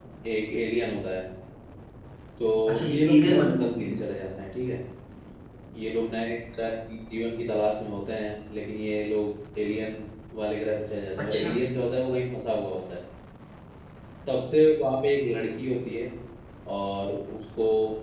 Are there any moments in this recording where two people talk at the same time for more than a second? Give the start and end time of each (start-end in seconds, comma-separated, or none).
2.7-3.9